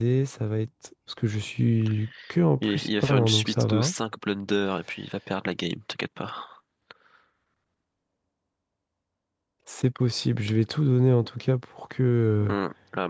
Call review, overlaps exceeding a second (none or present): present